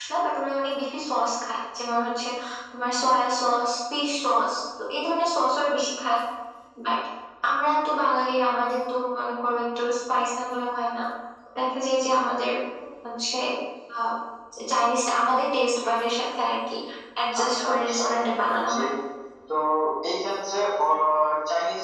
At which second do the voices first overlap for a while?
17.4 s

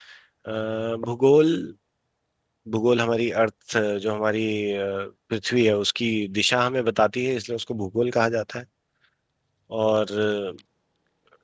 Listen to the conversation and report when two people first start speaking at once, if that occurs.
none

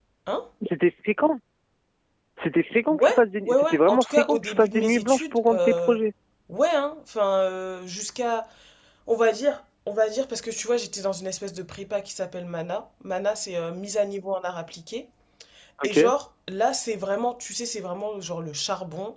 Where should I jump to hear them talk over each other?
2.9 s

